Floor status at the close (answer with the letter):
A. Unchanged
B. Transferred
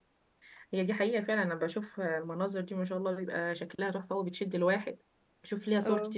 A